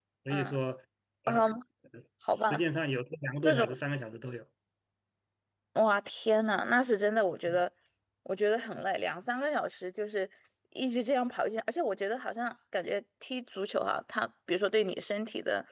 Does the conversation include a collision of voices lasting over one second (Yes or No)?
No